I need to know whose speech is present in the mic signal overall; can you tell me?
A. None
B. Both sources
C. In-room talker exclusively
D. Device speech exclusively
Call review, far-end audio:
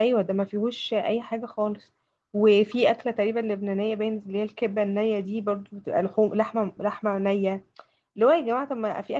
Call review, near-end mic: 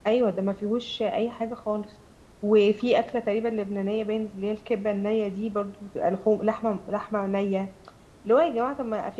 D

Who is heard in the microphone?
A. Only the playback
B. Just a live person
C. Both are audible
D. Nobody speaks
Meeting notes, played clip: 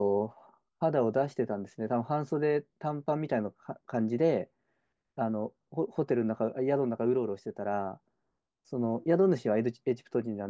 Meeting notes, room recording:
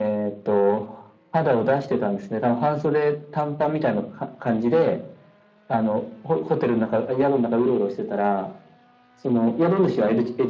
A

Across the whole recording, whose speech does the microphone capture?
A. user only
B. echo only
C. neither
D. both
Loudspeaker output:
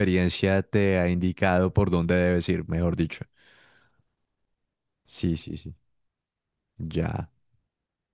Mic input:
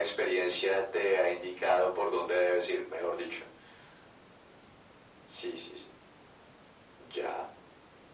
B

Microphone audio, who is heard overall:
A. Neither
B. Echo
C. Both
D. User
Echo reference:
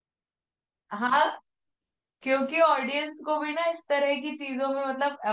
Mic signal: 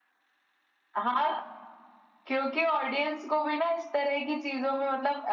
B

